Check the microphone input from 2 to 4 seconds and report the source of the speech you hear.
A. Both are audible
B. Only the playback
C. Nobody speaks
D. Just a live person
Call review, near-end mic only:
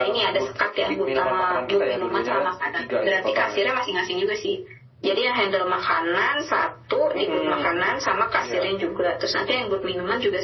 B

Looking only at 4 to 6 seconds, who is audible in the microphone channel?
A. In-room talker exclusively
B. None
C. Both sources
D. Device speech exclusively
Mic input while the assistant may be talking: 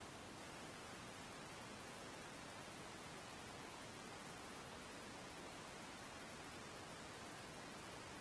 B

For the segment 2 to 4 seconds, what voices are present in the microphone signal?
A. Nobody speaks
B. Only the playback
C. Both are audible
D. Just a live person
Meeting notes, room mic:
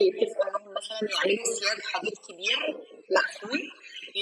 B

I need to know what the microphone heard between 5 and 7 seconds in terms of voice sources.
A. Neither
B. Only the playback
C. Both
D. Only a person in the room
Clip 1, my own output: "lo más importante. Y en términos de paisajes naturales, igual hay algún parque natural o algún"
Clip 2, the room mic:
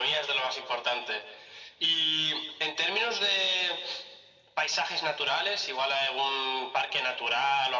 B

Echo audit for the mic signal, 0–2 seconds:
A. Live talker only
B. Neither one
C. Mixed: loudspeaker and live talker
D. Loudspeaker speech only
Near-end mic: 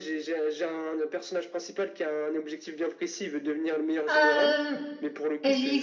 D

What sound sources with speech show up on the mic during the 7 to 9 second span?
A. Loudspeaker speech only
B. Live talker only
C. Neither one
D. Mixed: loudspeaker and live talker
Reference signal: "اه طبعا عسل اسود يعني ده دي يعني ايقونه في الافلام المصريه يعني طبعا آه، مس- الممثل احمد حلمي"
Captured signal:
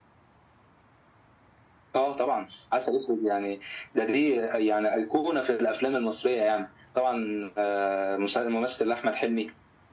A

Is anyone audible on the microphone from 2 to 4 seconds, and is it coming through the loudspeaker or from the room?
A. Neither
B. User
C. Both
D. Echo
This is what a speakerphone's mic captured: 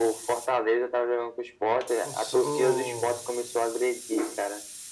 C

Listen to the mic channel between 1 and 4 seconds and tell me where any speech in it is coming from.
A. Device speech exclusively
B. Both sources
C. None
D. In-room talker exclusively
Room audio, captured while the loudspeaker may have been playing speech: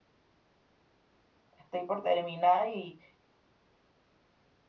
D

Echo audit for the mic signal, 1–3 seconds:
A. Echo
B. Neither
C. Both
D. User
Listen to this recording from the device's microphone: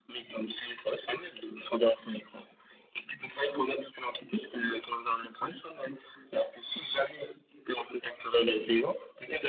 A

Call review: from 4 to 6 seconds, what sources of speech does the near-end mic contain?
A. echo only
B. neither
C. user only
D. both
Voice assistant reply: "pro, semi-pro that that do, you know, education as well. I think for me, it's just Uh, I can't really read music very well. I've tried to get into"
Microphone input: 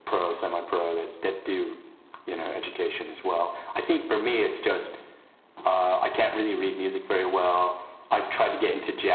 A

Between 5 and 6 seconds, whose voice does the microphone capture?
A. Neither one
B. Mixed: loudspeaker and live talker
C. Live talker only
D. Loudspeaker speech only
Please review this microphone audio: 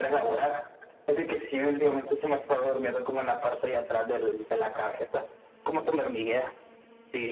D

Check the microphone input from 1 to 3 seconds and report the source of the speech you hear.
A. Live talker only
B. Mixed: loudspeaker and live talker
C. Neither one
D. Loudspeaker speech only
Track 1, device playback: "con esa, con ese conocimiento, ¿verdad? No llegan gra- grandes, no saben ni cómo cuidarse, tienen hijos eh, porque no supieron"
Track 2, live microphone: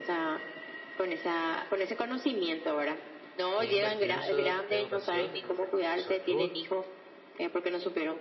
D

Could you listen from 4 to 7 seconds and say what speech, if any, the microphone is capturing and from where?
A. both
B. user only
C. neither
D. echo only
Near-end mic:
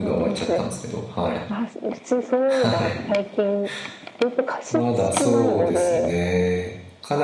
A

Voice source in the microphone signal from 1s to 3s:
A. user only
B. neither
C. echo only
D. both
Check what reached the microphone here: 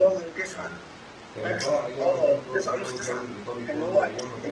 D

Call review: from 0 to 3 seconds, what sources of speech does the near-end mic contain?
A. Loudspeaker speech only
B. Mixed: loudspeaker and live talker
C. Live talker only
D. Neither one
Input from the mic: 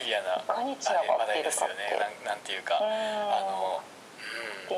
A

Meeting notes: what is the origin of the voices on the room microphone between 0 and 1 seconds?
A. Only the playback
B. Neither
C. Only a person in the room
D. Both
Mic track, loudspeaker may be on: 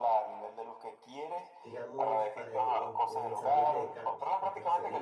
A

